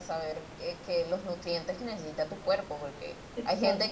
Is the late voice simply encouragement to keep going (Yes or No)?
Yes